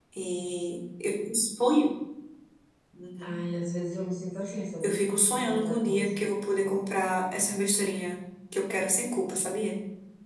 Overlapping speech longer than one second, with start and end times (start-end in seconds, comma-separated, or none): 4.8-6.2